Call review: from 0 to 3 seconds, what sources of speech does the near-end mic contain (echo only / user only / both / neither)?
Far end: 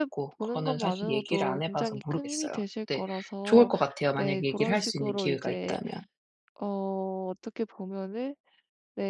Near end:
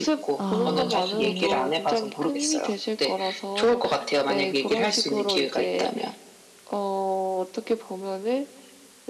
both